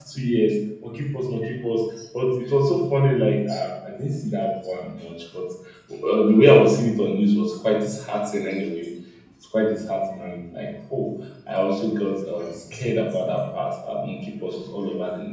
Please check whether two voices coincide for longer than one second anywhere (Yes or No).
No